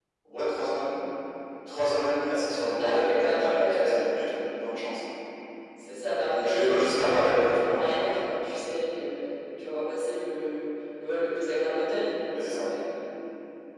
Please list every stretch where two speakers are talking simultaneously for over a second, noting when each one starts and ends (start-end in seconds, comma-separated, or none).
2.8-4.2, 6.3-8.1